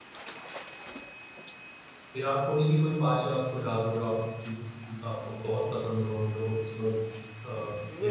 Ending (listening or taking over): taking over